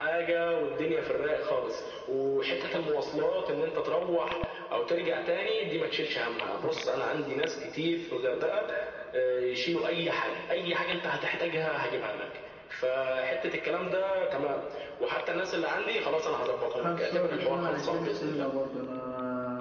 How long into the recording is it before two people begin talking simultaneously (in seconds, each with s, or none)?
16.8 s